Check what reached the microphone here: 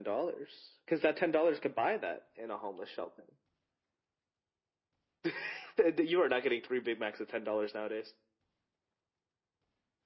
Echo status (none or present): present